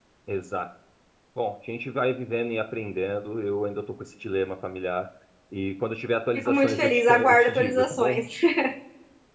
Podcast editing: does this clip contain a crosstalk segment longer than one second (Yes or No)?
Yes